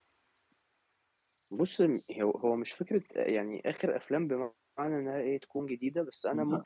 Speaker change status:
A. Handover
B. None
B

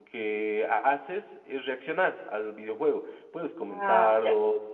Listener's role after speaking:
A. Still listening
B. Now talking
A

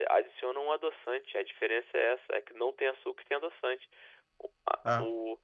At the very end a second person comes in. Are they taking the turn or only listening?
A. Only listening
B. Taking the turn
A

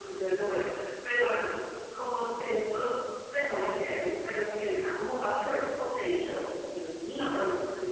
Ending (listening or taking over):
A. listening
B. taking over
A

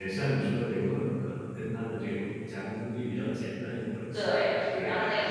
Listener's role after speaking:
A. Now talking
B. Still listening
A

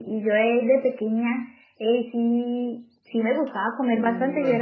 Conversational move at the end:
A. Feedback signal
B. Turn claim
A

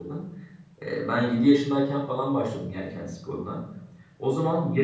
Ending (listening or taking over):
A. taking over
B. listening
B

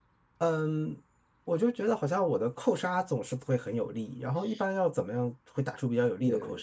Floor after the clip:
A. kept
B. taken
B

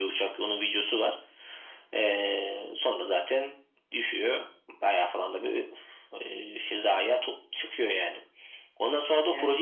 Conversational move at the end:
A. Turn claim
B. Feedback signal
B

